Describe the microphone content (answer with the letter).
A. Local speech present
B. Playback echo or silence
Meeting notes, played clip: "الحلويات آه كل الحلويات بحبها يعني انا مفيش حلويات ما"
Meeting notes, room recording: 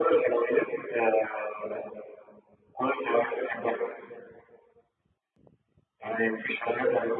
B